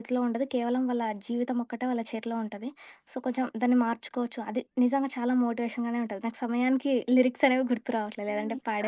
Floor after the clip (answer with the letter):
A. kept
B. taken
B